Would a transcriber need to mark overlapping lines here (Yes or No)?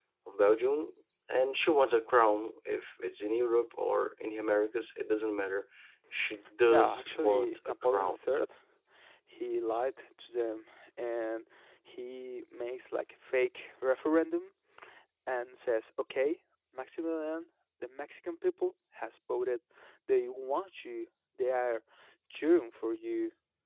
Yes